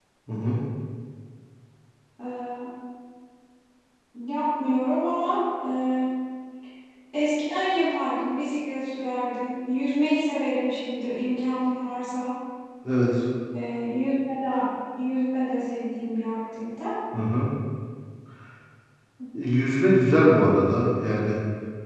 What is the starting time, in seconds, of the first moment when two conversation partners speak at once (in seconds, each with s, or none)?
none